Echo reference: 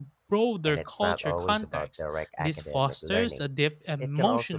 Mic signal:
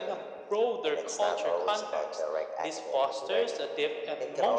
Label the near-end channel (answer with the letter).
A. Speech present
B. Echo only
B